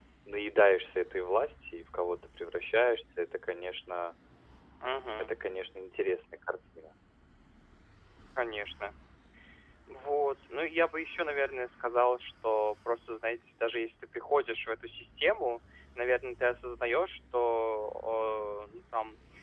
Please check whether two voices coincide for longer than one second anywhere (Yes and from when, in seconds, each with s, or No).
No